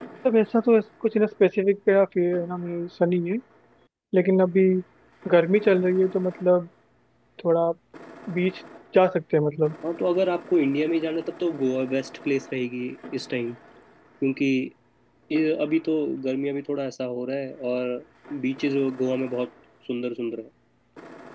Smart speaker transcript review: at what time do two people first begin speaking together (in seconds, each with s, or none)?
none